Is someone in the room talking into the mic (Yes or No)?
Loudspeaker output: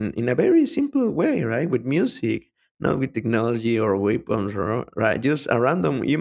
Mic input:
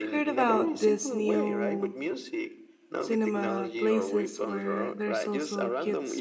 Yes